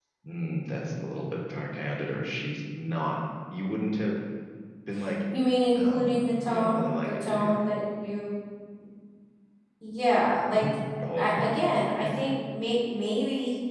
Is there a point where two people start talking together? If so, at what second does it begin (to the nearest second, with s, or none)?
6 s